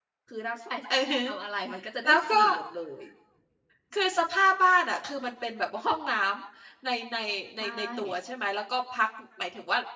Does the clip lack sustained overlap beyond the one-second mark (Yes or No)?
Yes